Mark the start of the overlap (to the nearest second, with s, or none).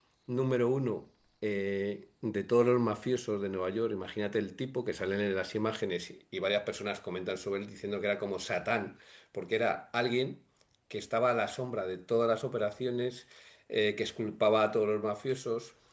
none